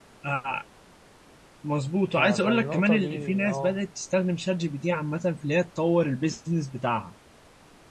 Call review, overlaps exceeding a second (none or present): present